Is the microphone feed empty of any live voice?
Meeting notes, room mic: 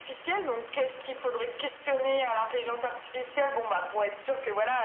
Yes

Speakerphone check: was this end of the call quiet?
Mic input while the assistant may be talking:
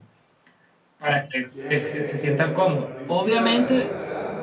No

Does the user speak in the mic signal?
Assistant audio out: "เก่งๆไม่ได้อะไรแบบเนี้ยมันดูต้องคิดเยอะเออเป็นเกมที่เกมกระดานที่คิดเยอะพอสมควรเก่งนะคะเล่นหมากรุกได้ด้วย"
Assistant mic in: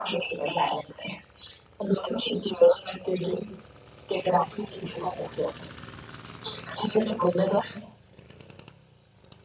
No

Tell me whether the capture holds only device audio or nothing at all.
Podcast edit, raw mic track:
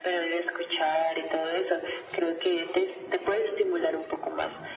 Yes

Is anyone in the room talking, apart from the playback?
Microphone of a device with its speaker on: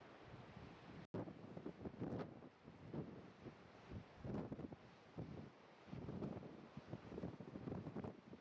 No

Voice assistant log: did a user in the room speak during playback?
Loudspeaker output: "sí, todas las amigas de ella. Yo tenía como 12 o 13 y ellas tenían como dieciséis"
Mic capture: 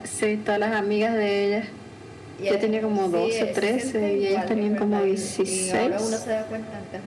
Yes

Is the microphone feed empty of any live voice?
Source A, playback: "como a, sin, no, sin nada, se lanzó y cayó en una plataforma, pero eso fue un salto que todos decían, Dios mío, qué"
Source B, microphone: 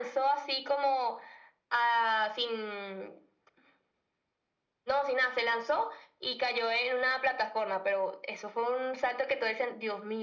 Yes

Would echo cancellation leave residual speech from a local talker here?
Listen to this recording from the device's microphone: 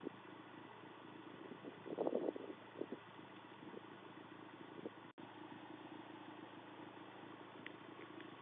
No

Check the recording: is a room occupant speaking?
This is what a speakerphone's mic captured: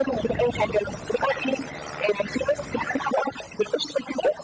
No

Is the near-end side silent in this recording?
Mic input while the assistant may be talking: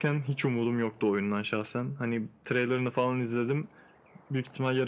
Yes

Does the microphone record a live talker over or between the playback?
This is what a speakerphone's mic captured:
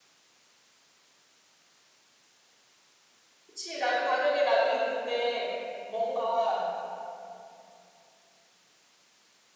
Yes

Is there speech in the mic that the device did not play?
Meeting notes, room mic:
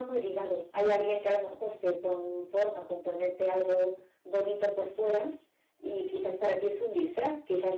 No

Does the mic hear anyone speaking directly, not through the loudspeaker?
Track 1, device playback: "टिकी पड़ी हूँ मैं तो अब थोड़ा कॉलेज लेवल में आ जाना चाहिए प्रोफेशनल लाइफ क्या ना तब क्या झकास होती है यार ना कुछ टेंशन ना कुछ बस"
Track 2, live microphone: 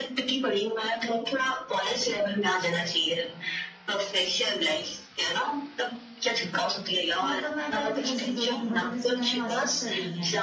Yes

